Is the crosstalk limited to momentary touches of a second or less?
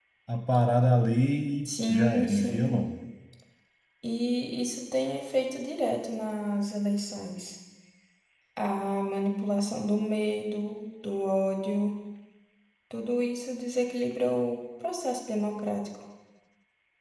No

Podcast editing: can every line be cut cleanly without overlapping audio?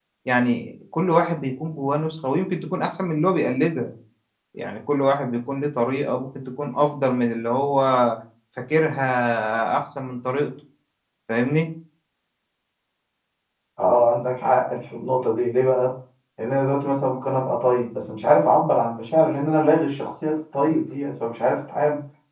Yes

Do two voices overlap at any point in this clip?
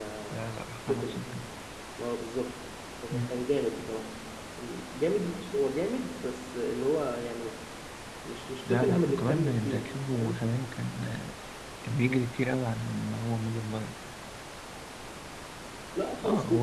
Yes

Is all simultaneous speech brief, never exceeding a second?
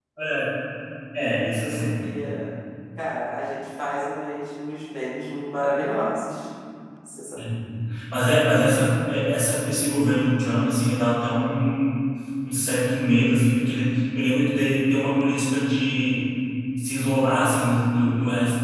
Yes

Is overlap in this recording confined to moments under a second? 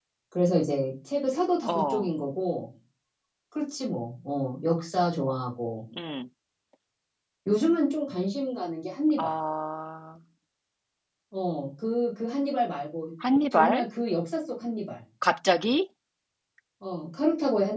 Yes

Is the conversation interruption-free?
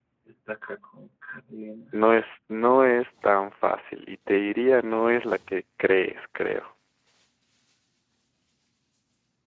Yes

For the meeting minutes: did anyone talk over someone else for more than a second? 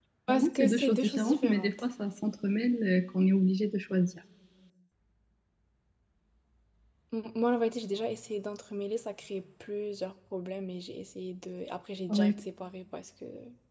Yes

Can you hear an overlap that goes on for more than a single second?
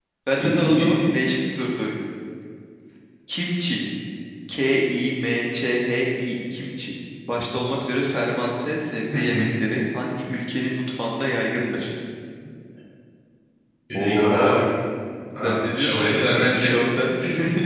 Yes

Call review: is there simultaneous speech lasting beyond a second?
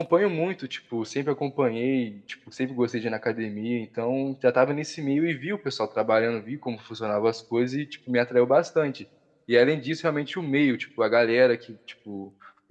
No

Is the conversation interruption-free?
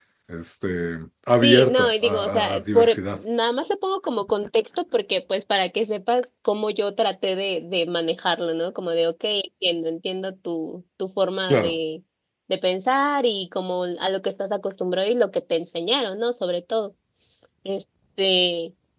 No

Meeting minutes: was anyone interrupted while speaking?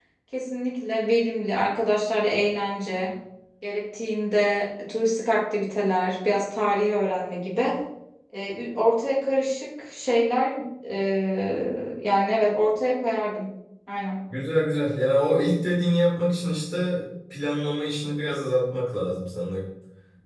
No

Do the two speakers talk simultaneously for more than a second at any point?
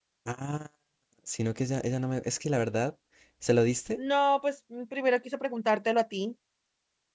No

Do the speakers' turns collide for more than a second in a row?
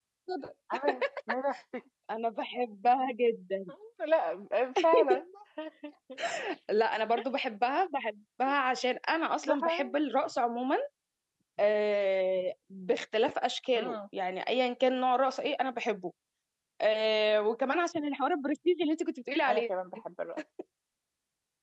No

